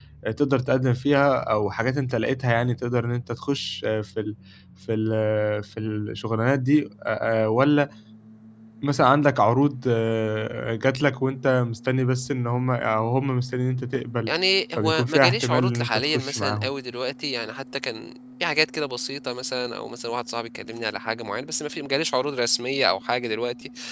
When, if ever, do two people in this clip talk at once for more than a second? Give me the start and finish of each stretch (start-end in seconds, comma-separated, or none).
14.8-16.7